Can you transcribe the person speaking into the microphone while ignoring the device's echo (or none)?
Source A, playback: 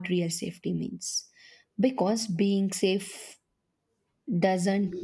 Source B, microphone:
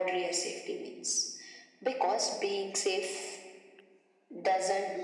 none